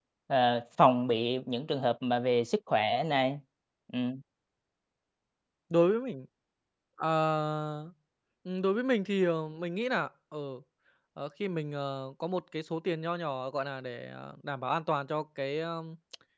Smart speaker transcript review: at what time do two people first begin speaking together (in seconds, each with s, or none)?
none